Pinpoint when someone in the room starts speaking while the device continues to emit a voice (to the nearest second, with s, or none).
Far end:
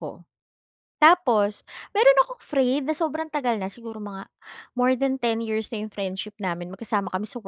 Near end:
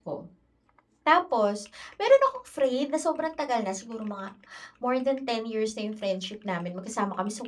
none